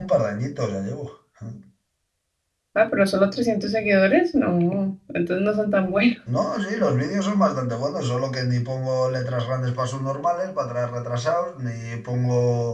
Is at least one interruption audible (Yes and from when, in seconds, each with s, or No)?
No